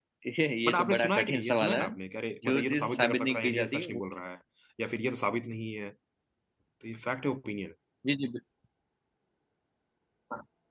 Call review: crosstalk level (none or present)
present